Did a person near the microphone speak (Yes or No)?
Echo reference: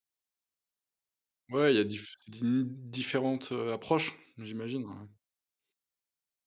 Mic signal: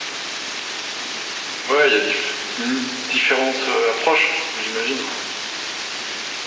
No